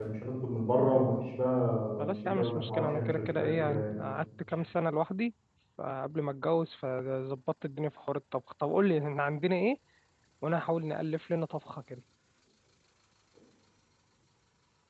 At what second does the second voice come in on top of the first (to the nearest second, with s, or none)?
2 s